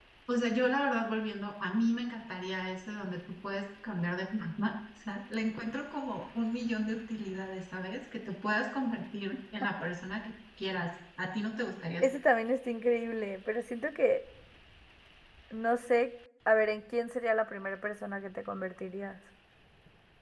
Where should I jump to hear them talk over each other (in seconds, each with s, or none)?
none